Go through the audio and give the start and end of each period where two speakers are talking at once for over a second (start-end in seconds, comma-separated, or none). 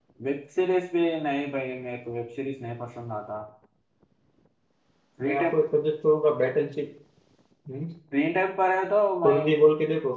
none